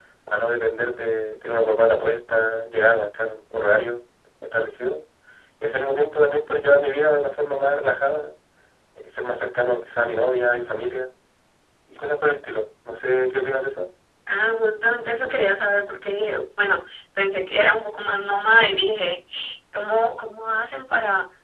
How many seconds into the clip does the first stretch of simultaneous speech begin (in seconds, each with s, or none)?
none